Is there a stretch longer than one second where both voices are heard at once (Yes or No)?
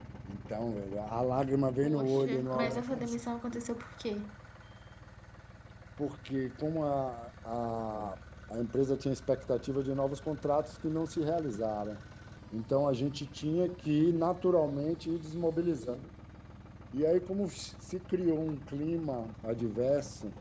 Yes